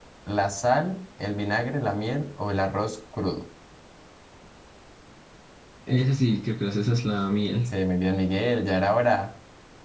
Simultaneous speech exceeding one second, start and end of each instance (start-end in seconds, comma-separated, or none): none